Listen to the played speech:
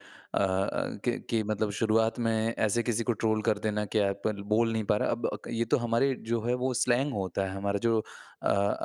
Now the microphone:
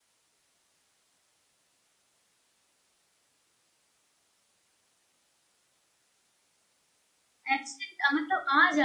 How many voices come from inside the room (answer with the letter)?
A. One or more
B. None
A